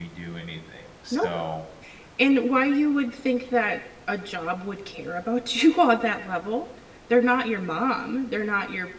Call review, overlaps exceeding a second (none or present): none